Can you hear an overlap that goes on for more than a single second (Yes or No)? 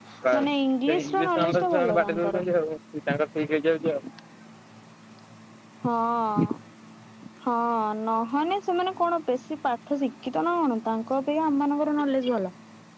Yes